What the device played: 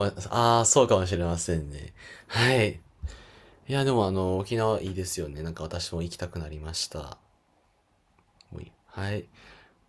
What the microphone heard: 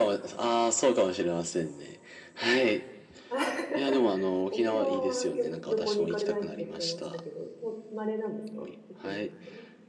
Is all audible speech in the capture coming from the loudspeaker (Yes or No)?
No